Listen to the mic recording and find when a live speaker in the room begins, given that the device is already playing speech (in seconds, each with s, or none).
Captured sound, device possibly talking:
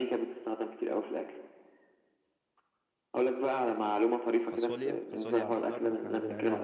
4.4 s